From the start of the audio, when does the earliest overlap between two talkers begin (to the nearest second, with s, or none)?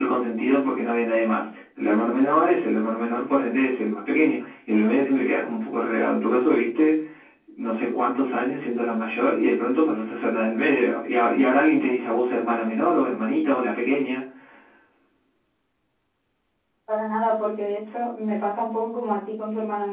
none